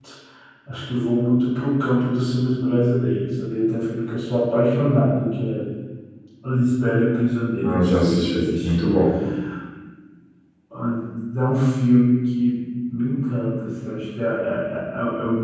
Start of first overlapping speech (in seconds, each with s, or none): 7.5 s